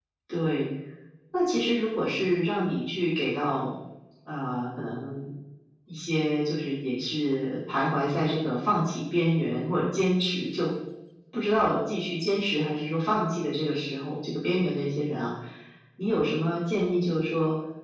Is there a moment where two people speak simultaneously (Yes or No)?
No